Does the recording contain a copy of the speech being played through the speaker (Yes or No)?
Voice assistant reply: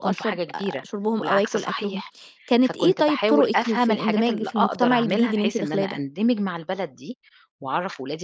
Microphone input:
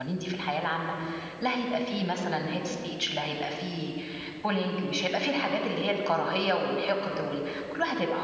No